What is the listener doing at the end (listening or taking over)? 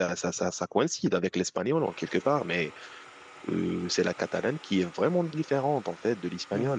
listening